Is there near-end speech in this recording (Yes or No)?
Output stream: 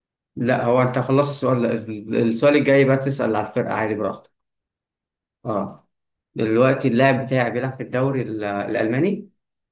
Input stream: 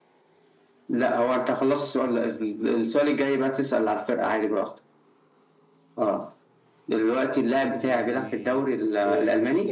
Yes